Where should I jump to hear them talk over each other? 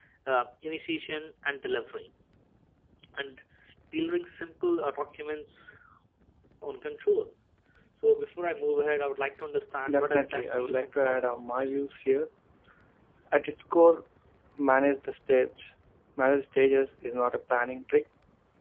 9.8 s

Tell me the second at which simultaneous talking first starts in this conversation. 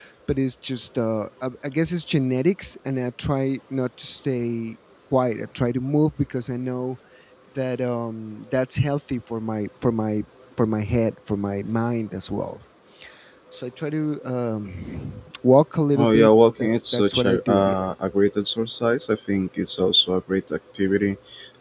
15.9 s

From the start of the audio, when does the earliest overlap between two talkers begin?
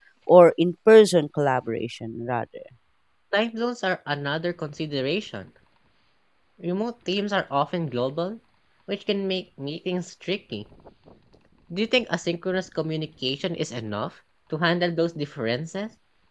none

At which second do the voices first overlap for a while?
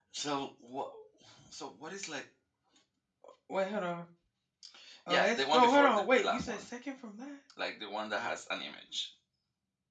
5.1 s

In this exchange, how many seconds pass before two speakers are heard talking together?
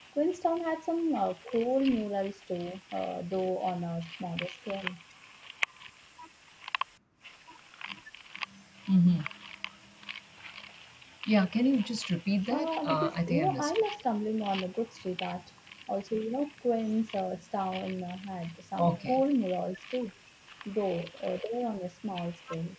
12.5 s

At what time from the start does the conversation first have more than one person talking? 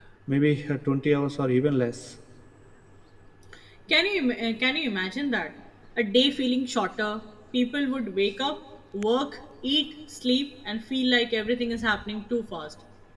none

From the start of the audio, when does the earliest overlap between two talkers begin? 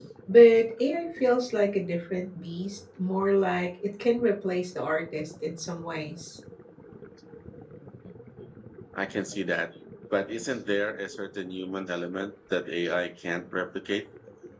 none

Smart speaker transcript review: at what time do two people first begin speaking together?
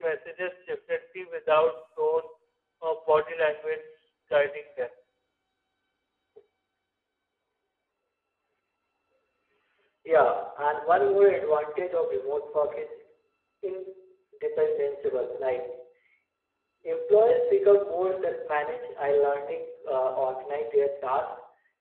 none

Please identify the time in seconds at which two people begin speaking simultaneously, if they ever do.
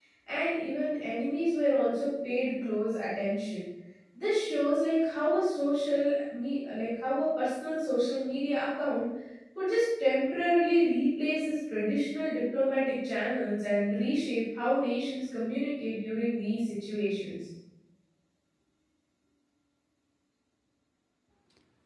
none

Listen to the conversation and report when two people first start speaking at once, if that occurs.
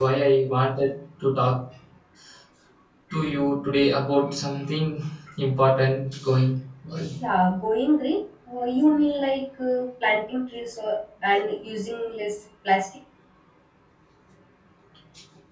none

